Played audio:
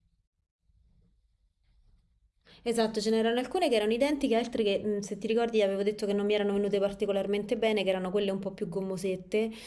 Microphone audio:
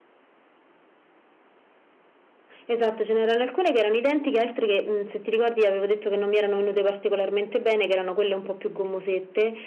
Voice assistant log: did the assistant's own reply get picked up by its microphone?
Yes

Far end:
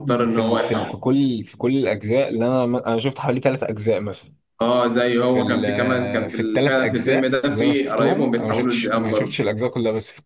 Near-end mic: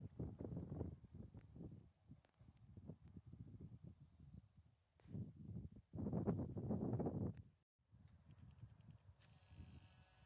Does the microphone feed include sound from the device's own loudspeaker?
No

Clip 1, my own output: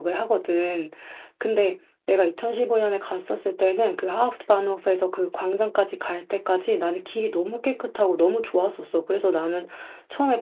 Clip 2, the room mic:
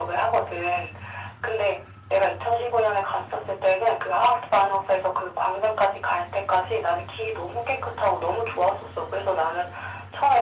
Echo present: Yes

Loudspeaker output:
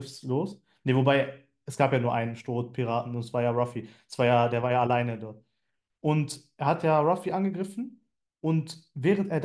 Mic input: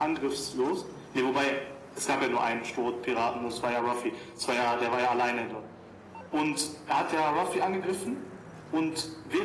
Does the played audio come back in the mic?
Yes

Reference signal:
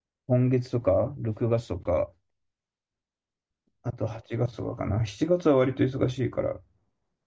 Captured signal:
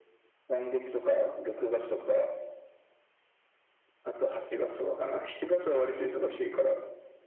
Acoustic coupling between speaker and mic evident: Yes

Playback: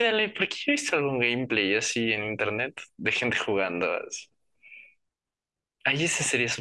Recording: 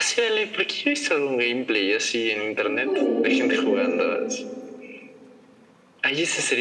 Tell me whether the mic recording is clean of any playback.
No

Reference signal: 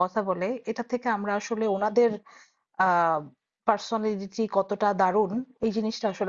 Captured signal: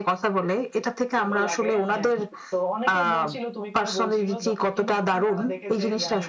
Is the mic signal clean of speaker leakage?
No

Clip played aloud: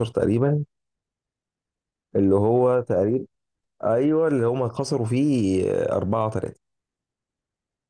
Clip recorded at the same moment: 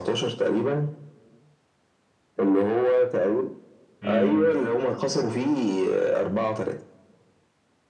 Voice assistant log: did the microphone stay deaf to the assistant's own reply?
No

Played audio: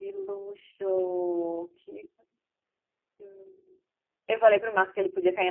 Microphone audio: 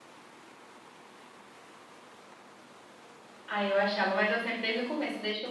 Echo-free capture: Yes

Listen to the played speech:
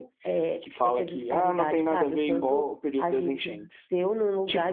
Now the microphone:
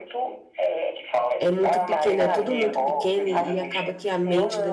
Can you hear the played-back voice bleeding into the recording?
Yes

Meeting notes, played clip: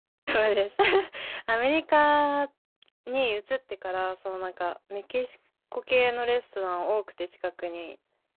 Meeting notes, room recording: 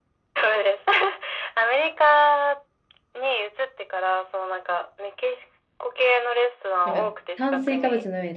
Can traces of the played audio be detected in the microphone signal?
Yes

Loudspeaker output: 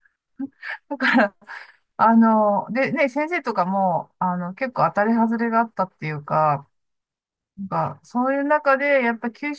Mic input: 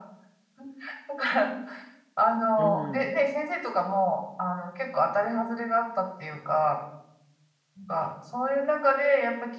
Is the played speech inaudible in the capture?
No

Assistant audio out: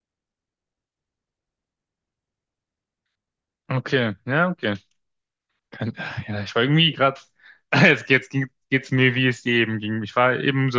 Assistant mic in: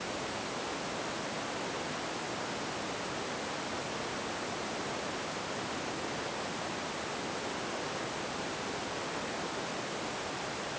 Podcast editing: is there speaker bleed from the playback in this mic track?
No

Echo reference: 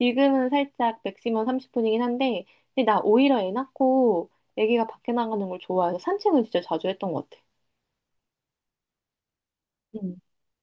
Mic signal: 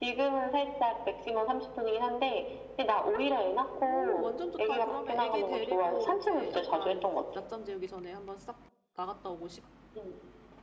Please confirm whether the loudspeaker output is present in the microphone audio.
Yes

